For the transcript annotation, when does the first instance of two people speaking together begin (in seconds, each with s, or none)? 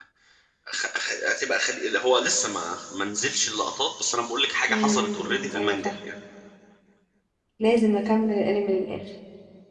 4.7 s